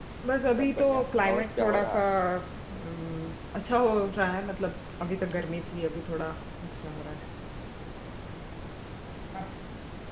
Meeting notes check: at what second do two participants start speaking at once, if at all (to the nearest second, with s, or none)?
1 s